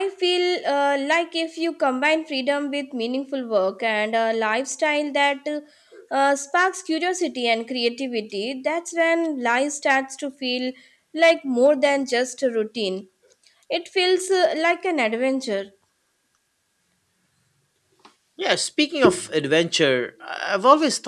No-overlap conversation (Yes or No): Yes